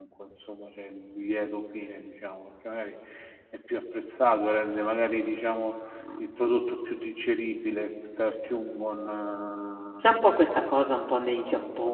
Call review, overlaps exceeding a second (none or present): none